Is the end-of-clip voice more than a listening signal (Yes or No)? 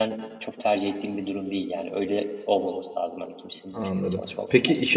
Yes